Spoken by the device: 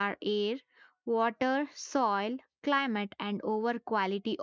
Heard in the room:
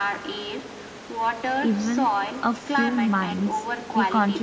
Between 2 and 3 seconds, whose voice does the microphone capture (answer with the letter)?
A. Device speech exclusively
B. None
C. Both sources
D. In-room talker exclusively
C